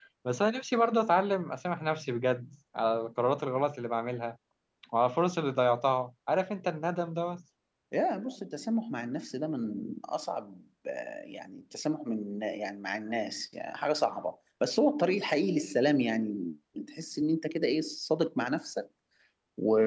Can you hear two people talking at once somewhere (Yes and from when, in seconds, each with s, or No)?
No